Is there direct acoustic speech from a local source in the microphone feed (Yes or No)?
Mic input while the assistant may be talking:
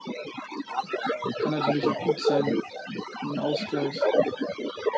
Yes